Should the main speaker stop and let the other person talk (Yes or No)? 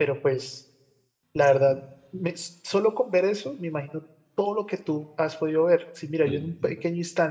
No